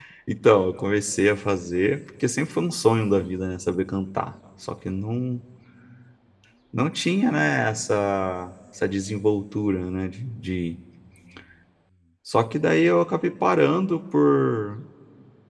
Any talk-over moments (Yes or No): No